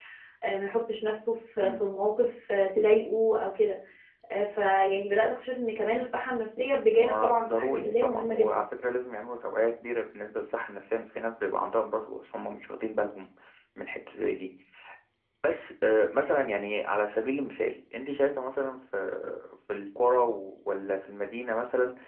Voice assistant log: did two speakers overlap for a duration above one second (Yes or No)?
Yes